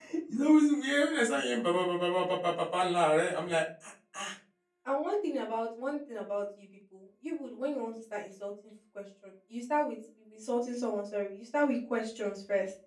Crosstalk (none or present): none